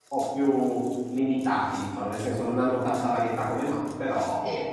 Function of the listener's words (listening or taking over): taking over